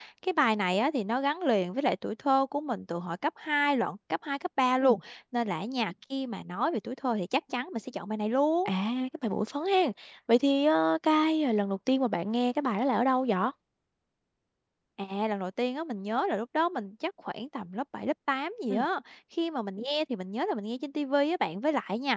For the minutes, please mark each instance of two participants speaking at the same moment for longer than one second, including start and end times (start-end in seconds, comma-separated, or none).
none